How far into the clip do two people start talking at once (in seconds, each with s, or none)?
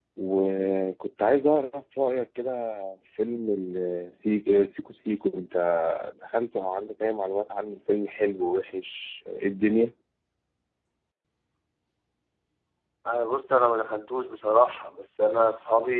none